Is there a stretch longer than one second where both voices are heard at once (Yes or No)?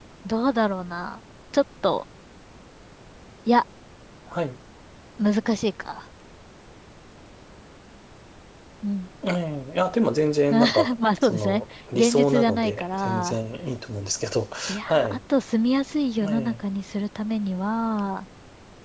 Yes